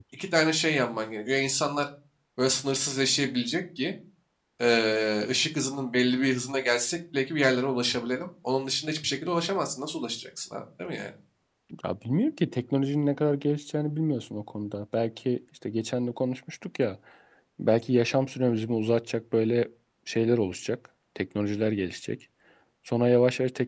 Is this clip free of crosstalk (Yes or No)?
Yes